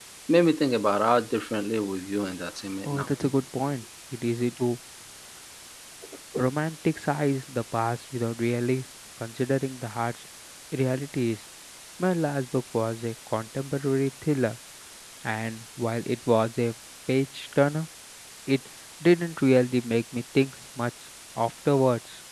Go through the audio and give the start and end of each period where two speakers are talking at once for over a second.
none

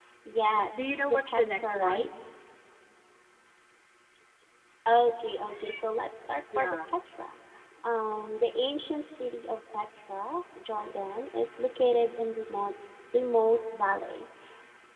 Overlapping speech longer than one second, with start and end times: 0.7-2.1

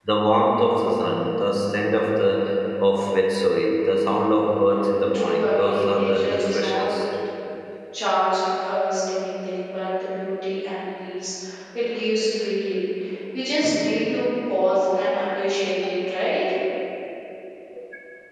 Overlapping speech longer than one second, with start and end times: 5.1-6.8

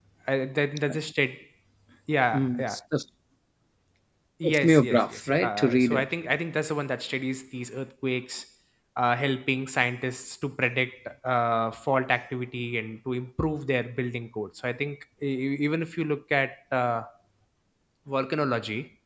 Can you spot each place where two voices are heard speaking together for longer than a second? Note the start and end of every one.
4.4-6.1

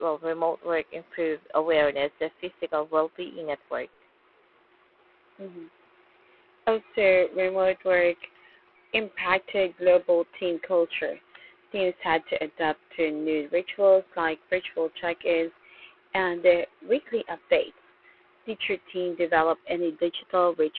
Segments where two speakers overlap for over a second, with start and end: none

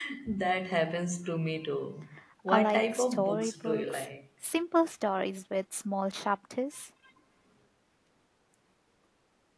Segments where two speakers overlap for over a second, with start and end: 2.5-4.0

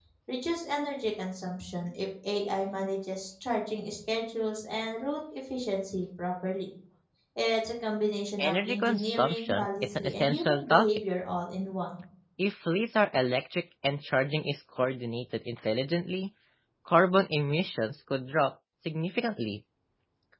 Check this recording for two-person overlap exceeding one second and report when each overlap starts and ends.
8.4-10.9

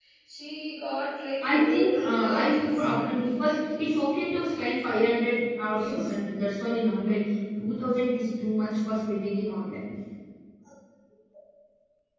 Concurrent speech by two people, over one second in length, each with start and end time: 1.4-3.5

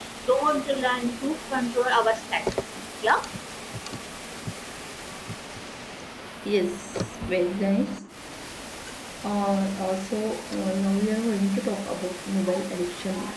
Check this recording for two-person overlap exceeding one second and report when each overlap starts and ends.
none

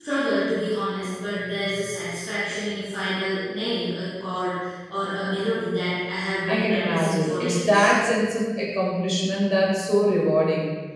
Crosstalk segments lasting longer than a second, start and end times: 6.5-7.9

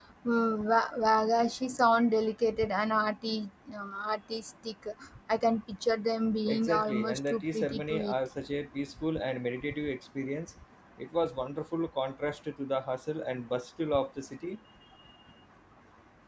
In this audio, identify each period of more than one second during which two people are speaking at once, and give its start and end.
6.5-8.2

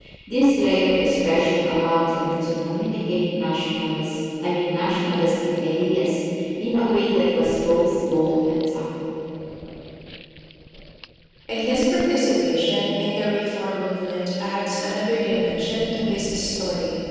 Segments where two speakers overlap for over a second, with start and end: none

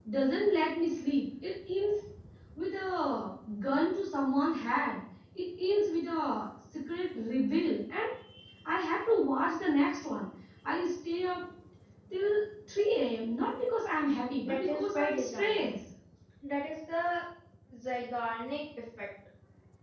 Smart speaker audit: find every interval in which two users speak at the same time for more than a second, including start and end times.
14.4-15.7

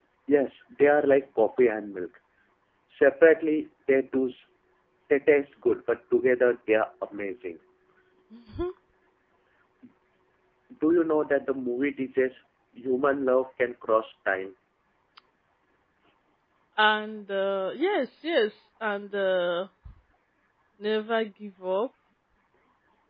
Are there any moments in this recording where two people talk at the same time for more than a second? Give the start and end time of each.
none

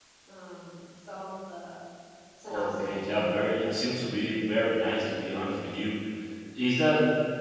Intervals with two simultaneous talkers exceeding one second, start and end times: 2.5-3.7

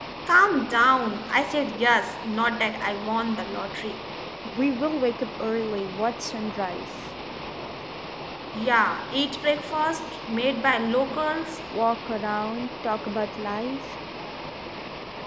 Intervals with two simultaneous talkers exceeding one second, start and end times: none

